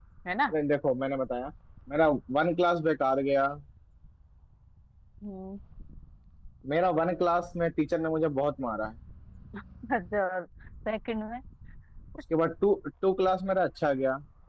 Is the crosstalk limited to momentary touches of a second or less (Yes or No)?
Yes